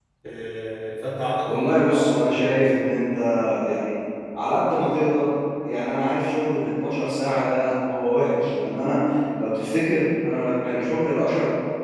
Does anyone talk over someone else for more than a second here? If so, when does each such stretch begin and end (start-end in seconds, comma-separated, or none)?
1.4-2.7